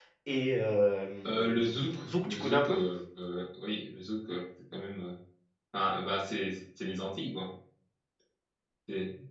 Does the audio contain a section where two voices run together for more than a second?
Yes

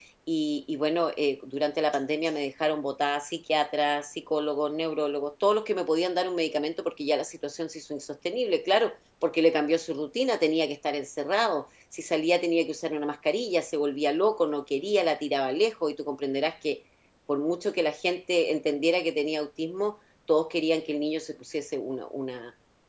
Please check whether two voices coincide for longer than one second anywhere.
No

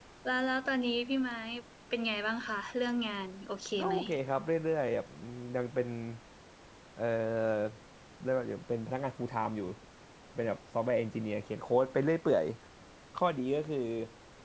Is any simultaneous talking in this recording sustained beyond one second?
No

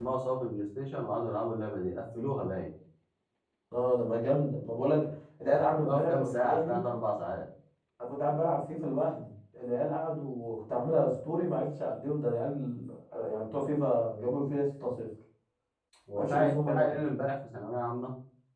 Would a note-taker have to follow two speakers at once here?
Yes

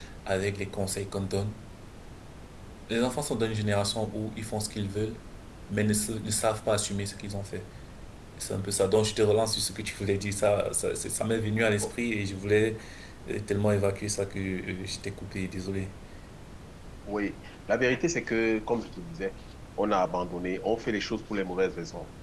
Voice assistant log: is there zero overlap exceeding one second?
Yes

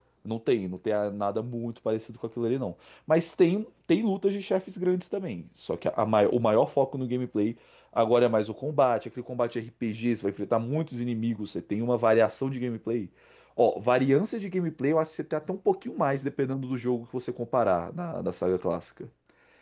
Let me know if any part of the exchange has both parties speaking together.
No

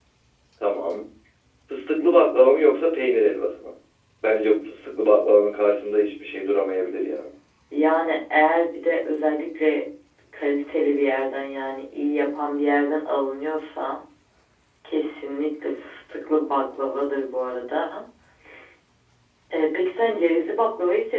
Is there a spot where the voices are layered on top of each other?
No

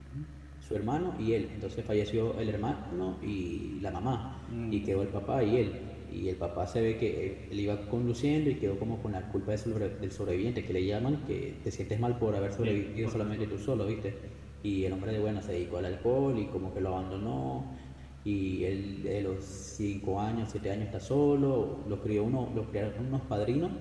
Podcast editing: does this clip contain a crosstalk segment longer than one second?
Yes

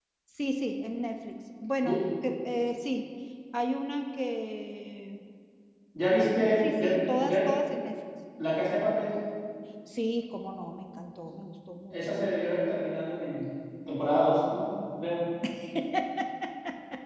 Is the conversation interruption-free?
No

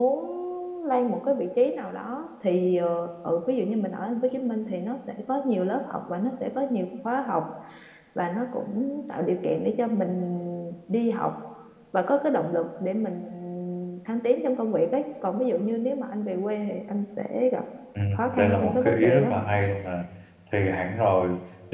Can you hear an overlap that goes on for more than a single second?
Yes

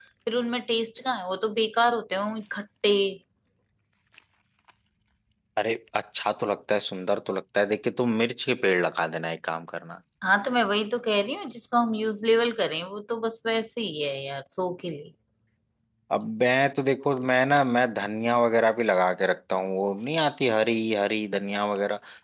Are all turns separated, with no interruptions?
Yes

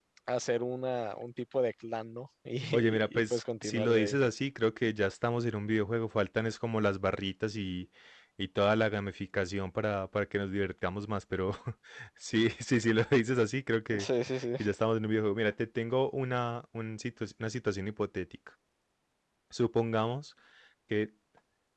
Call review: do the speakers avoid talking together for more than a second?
No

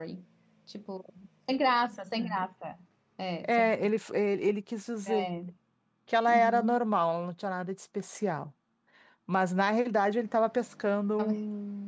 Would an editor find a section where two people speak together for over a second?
No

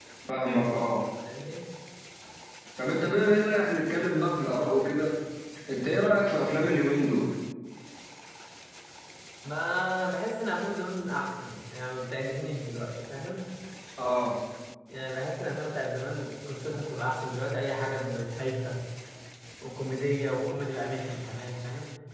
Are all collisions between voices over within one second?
Yes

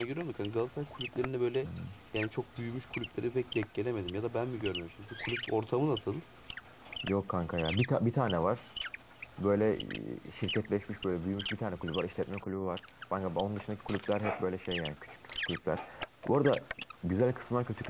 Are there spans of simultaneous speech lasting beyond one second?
No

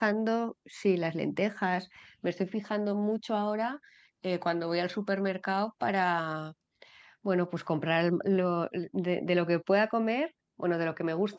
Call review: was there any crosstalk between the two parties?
No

